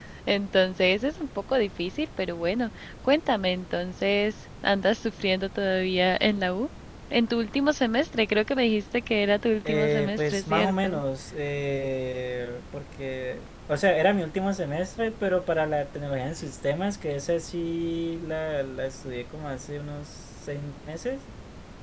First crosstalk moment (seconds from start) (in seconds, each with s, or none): 9.6 s